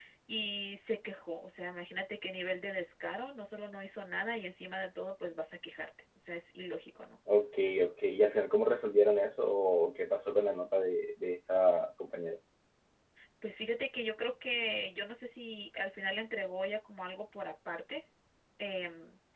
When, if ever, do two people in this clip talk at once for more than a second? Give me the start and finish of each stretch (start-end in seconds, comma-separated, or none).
none